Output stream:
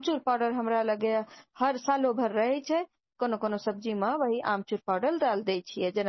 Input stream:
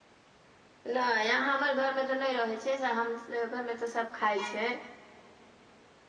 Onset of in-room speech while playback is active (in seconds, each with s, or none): 0.9 s